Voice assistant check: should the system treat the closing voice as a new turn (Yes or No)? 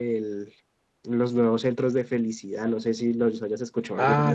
Yes